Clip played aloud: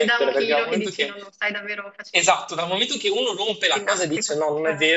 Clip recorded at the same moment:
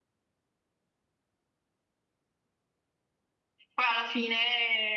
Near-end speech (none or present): present